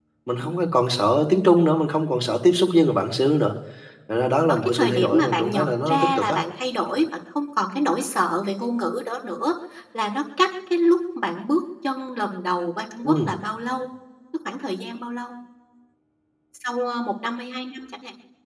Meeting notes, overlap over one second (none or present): present